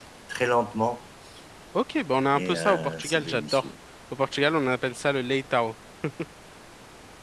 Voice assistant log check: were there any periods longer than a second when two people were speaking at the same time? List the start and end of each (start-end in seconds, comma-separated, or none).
2.4-3.6